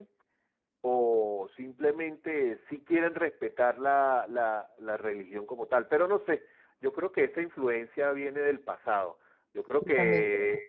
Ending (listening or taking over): listening